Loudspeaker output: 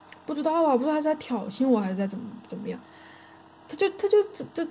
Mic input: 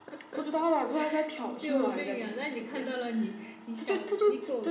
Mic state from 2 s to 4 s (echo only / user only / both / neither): both